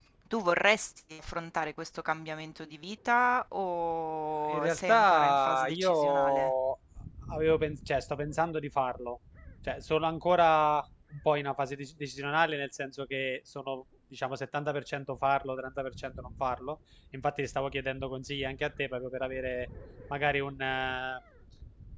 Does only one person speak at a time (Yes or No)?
No